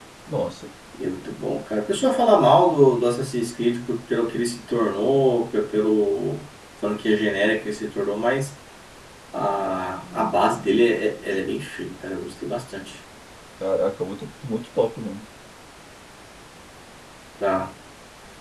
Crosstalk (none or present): none